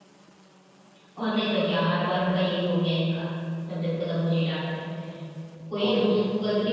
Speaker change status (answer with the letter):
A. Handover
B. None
B